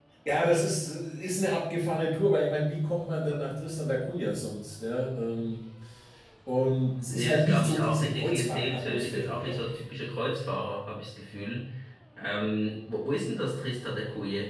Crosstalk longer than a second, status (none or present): present